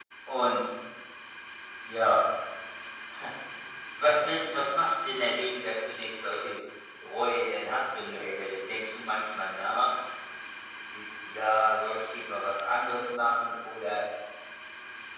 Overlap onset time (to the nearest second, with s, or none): none